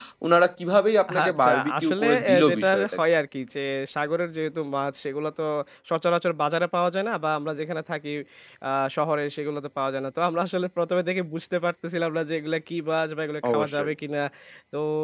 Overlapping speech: Yes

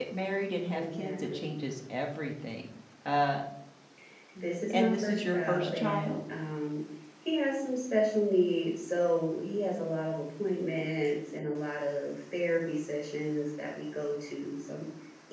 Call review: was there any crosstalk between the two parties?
Yes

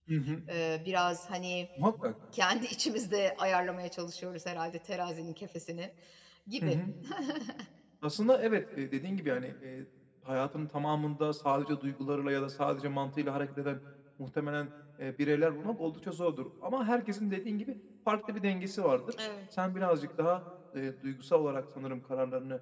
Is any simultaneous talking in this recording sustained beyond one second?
No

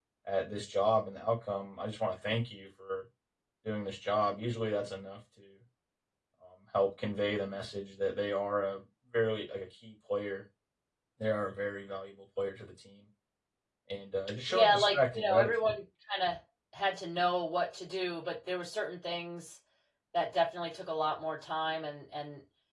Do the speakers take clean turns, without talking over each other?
No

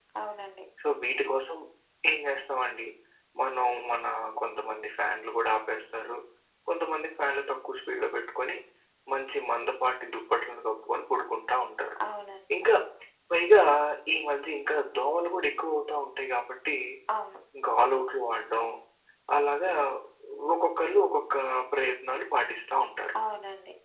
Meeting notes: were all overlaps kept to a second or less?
Yes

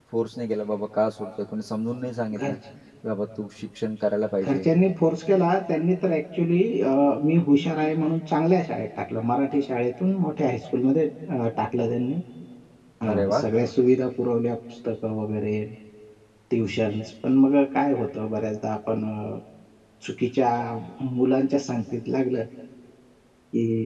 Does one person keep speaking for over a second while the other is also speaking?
No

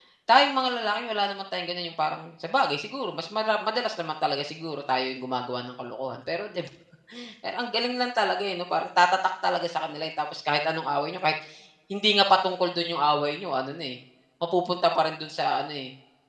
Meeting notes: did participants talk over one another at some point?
No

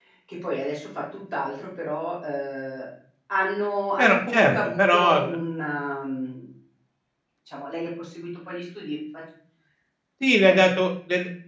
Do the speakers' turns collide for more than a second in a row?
Yes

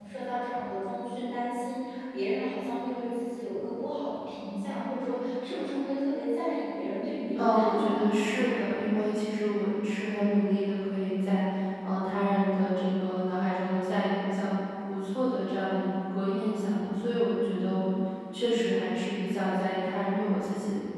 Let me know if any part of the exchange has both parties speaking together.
Yes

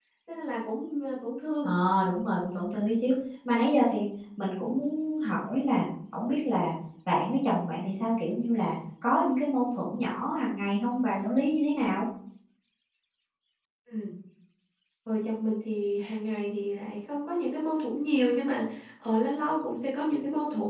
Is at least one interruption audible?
No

